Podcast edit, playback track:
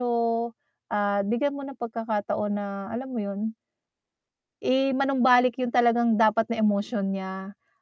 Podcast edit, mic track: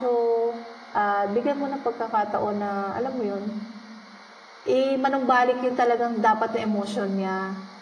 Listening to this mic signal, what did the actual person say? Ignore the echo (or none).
none